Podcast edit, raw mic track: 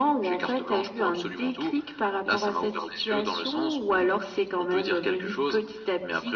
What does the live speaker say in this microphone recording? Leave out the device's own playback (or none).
none